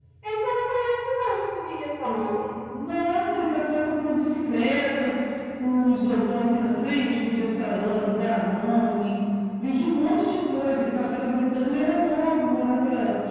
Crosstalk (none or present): none